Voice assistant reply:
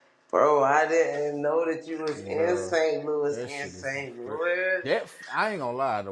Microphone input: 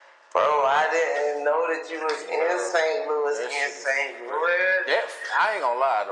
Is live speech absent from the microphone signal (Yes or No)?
Yes